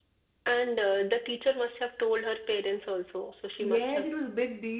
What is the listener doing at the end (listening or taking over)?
taking over